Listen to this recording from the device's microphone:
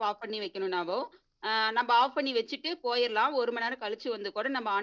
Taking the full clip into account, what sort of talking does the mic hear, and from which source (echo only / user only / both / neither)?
echo only